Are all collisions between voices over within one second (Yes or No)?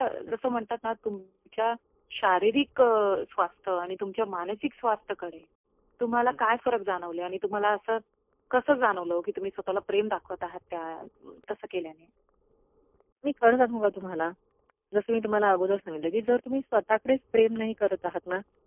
Yes